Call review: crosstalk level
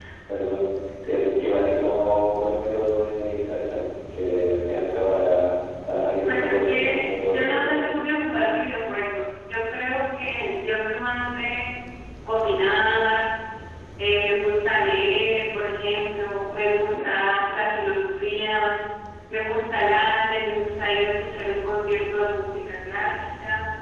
present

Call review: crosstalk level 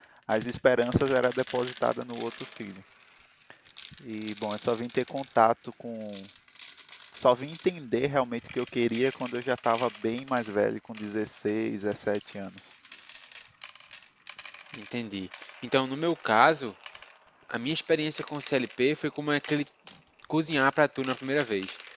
none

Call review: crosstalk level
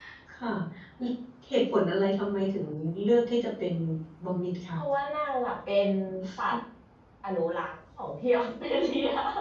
none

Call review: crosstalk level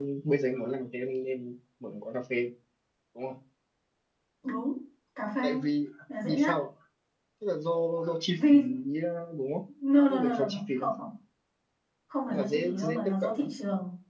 present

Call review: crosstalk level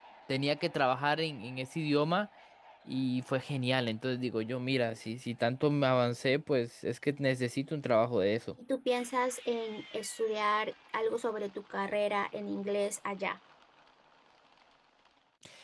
none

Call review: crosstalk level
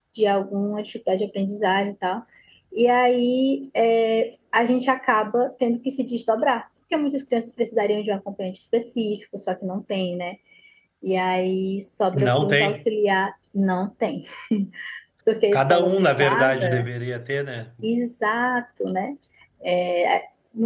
present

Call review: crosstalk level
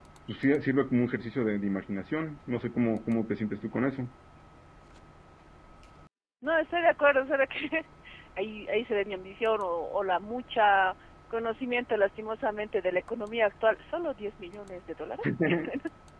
none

